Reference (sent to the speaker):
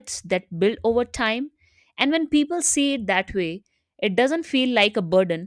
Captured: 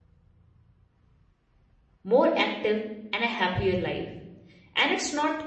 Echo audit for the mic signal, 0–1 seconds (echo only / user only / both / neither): neither